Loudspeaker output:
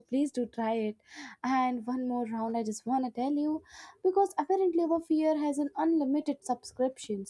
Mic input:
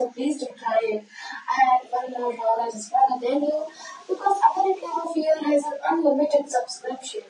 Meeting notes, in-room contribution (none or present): none